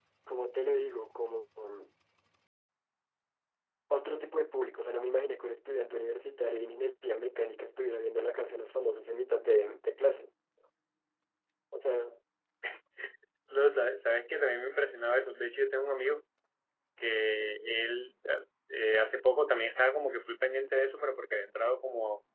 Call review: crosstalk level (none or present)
none